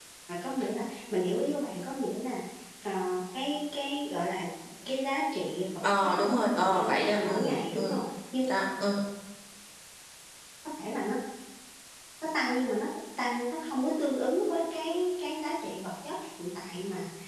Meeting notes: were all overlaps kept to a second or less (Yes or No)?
No